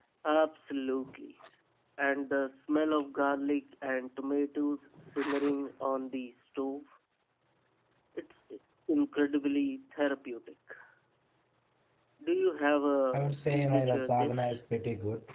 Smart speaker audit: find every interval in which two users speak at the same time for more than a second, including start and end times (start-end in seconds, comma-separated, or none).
13.1-14.6